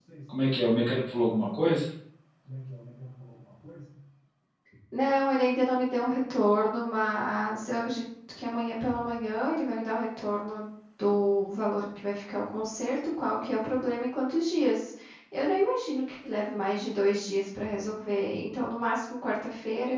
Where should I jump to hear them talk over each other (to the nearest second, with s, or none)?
none